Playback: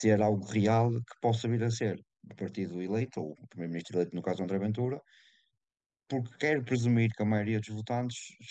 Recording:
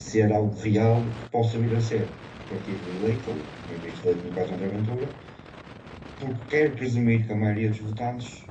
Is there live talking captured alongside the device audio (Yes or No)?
No